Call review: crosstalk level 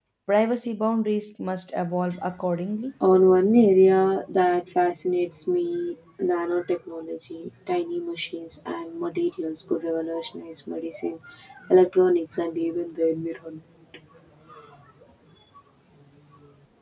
none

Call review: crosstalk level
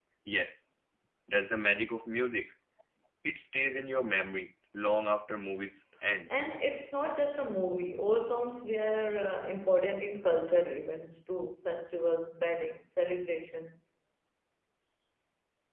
none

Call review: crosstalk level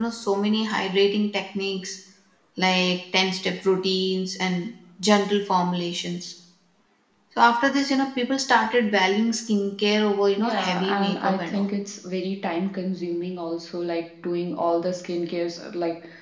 present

